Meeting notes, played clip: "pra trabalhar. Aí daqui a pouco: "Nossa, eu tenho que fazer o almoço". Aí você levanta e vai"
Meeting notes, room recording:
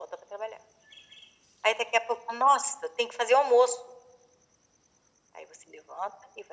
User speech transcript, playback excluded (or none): none